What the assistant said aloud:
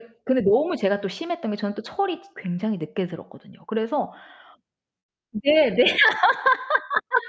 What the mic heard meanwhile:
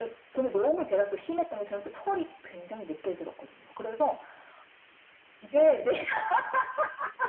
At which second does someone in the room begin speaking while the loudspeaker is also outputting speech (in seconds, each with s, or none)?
none